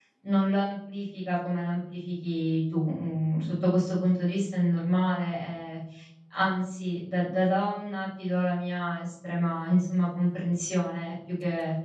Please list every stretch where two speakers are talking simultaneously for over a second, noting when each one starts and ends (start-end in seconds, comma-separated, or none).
none